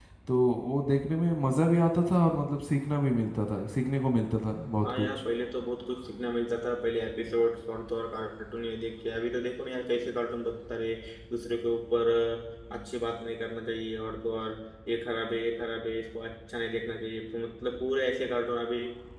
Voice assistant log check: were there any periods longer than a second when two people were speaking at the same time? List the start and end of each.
none

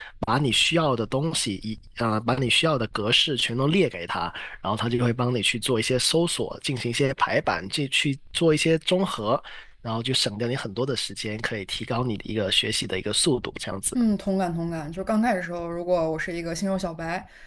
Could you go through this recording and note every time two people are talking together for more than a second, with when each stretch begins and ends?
none

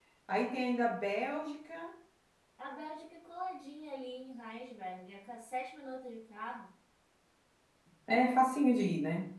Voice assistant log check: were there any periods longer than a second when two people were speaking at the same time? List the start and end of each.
none

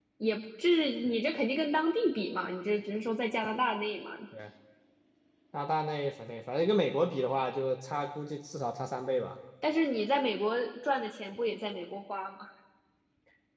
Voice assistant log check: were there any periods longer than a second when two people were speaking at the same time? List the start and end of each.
none

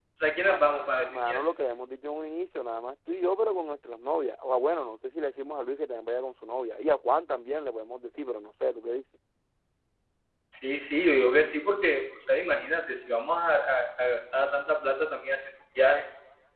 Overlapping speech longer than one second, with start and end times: none

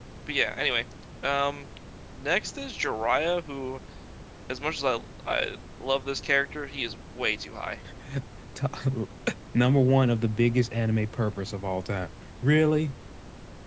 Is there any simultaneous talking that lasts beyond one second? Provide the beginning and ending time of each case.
none

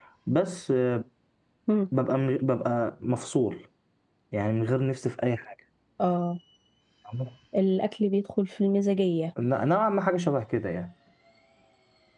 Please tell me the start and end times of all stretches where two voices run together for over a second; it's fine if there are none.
none

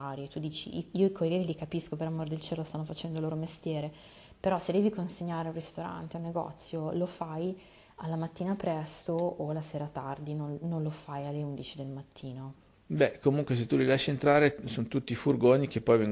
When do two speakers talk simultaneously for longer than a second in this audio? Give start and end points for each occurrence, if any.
none

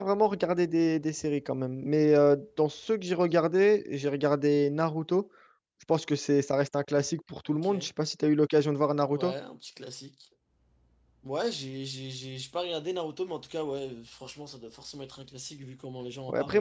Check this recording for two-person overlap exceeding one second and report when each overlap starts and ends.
none

